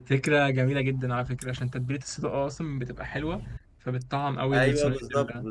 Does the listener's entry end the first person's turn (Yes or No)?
Yes